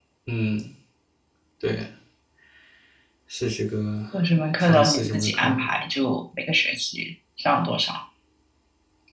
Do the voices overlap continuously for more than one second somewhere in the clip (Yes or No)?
Yes